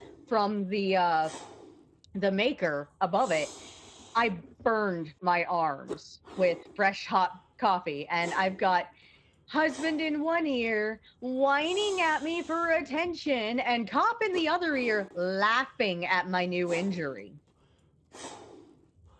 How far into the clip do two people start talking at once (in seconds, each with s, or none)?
none